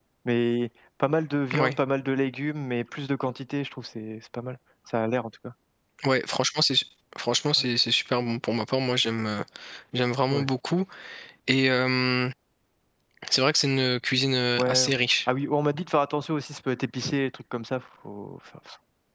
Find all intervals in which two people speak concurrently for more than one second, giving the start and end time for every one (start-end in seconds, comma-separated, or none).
none